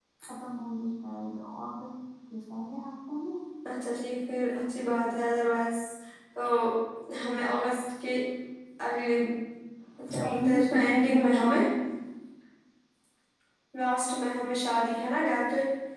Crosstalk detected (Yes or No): Yes